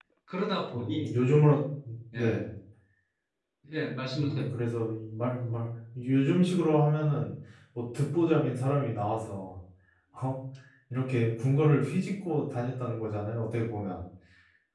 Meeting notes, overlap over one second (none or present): none